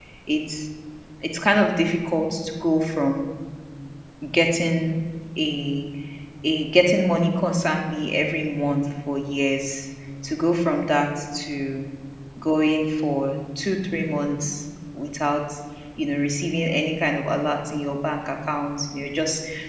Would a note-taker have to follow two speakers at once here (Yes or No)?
No